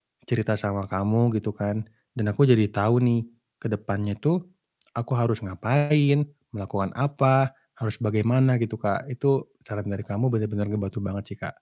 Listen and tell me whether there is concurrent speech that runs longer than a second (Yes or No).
No